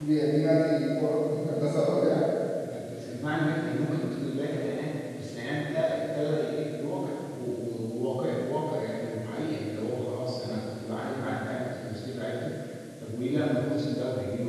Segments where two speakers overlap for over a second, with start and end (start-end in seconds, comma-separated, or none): none